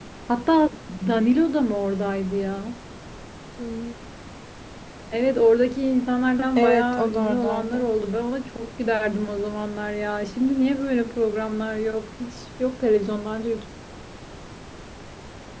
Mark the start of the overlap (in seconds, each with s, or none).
6.6 s